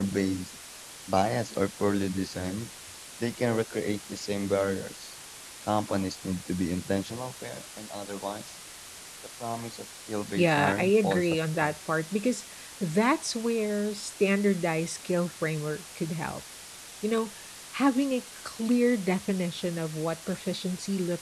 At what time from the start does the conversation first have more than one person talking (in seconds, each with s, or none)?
10.4 s